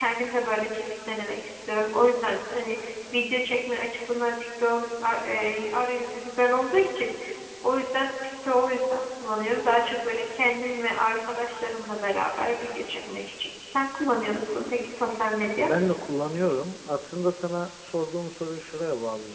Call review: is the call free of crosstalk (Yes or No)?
Yes